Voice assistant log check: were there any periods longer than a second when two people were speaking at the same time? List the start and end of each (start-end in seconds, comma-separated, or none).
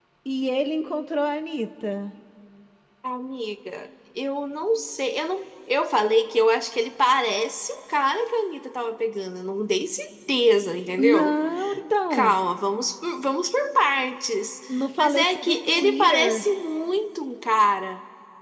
15.0-16.4